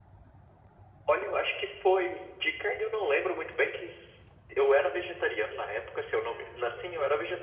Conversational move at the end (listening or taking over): listening